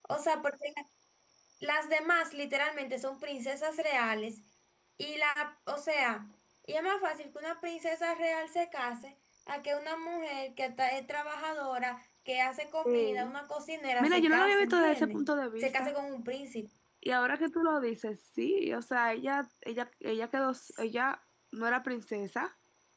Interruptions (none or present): present